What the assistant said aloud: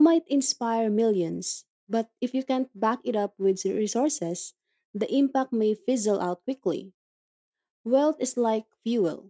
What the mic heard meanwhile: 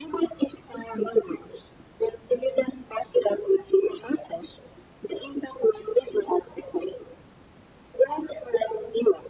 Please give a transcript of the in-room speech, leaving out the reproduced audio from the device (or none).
none